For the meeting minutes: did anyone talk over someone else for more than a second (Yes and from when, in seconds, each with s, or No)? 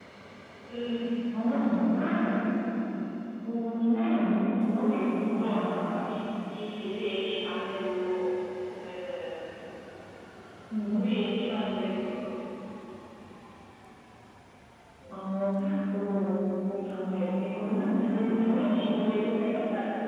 Yes, from 4.6 s